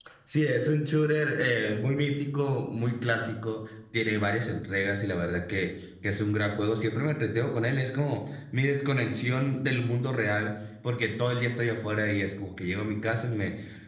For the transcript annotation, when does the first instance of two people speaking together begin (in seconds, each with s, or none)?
none